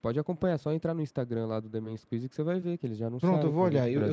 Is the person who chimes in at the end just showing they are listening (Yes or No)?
No